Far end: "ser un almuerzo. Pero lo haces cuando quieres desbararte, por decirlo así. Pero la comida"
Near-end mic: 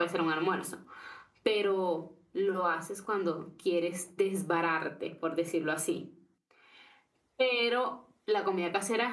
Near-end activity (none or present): none